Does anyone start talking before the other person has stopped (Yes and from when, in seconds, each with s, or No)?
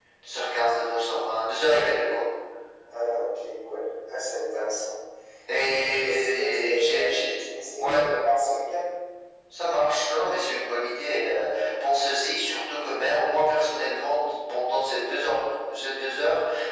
Yes, from 5.9 s